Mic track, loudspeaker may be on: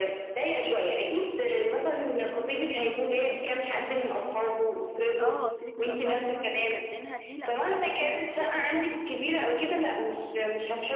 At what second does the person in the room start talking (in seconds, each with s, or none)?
5.2 s